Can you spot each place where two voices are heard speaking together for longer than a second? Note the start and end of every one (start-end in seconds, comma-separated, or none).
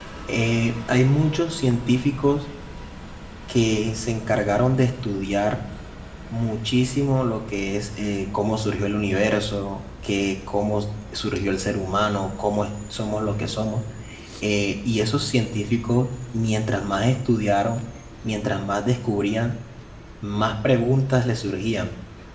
none